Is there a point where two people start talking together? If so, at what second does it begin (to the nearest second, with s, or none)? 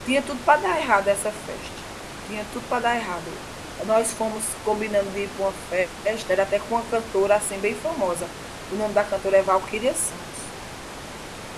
none